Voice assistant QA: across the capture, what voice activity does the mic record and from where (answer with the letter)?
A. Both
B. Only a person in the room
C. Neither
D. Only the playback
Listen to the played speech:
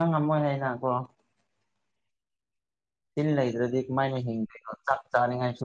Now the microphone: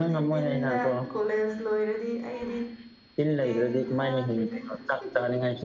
A